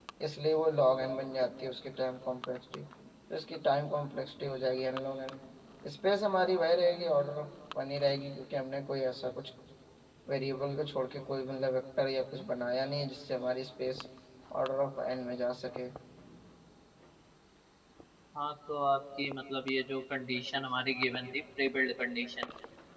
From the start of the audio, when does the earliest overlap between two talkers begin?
none

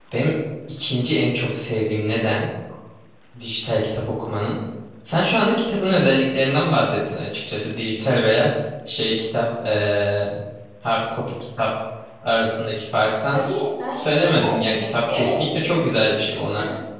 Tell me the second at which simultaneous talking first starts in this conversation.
14 s

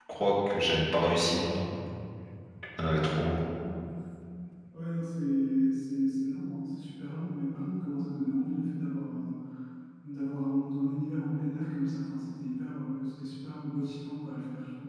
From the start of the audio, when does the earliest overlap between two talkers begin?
none

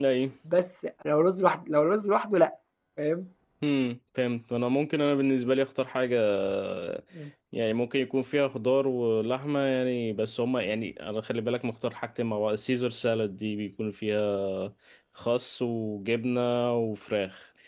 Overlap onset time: none

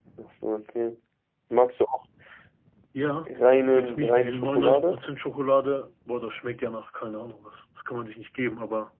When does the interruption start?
4 s

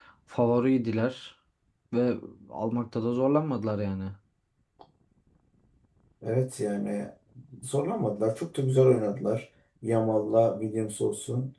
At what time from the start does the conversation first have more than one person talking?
none

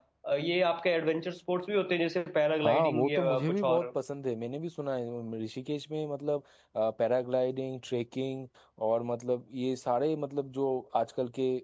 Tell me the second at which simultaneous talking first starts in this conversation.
3 s

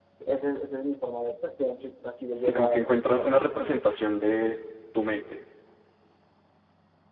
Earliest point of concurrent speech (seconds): 2 s

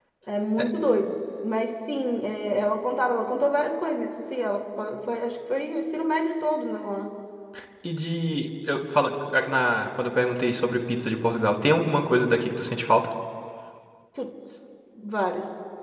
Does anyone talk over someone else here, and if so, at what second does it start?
none

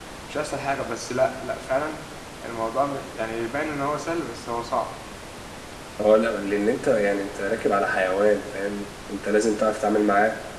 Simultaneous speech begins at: none

